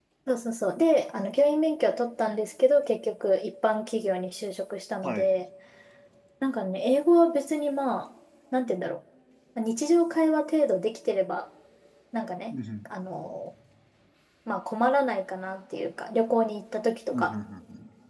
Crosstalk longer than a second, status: none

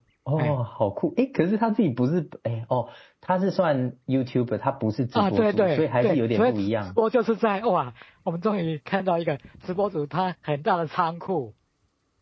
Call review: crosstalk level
present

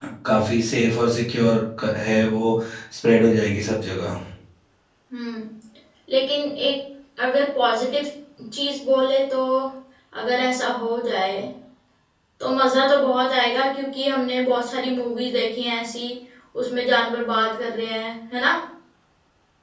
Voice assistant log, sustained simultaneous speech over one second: none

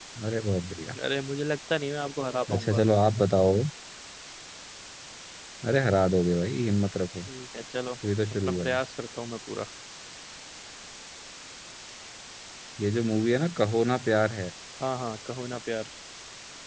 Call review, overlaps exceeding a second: none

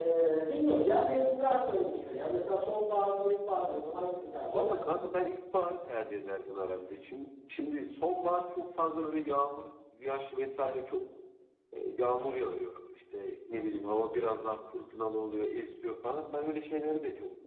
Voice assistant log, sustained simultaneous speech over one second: none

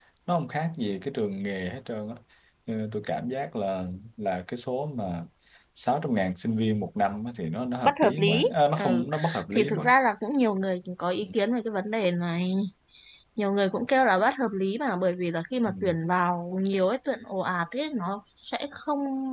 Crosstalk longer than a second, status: present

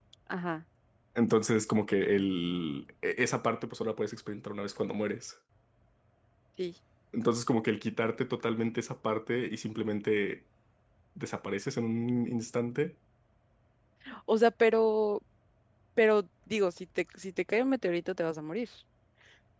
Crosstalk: none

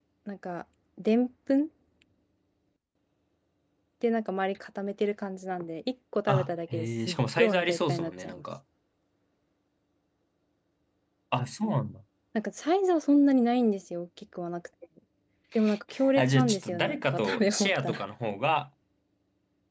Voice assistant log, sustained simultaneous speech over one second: present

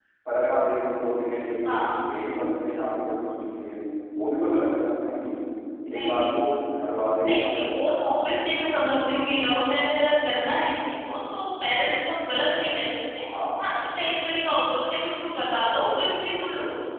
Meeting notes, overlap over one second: none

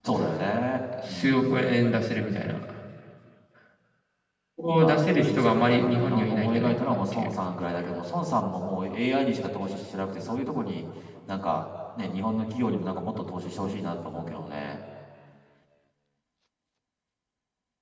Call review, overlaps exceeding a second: present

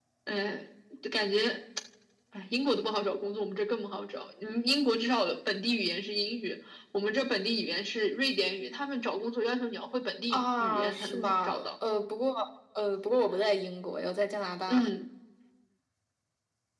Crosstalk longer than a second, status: present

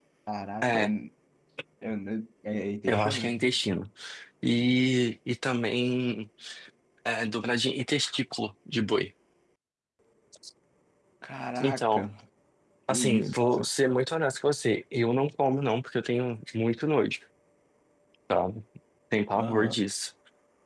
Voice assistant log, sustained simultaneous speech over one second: none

